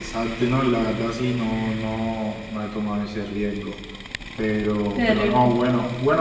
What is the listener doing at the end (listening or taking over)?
listening